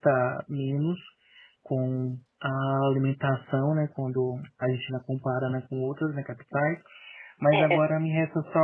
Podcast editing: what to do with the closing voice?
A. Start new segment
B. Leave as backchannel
B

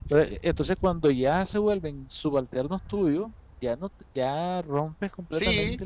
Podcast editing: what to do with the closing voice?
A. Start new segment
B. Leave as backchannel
A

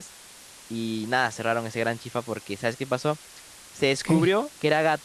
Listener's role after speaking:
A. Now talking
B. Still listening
B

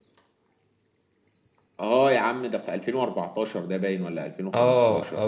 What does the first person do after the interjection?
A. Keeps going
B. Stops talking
B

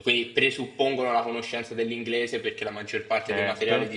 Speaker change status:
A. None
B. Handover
A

